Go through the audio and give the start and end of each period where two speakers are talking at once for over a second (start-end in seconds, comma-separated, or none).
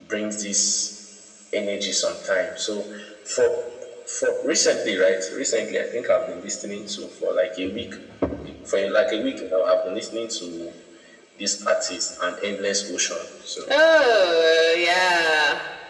none